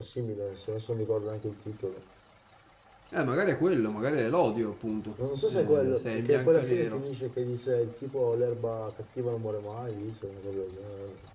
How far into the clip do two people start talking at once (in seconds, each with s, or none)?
5.5 s